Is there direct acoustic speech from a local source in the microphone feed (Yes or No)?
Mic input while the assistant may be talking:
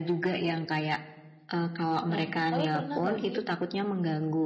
Yes